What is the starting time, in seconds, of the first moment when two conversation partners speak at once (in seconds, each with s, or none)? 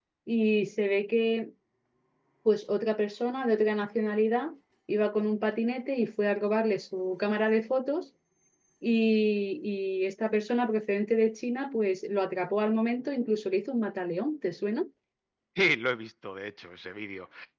none